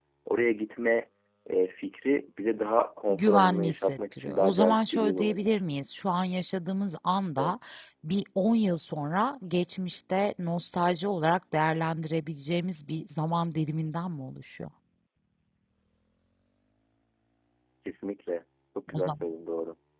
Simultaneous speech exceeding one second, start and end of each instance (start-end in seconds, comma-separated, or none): 3.1-5.6